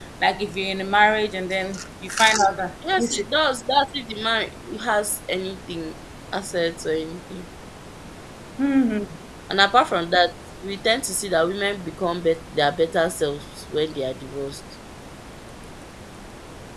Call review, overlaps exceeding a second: none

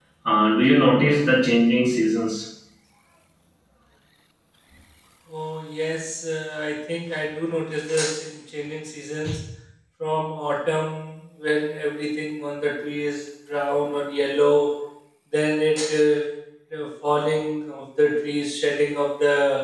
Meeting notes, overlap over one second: none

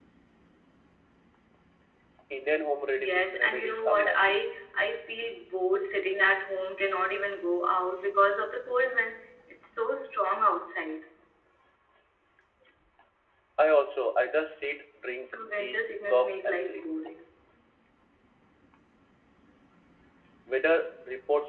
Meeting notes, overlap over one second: present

